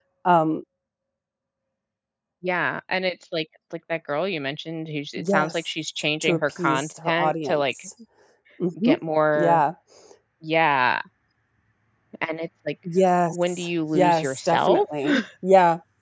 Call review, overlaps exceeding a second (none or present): present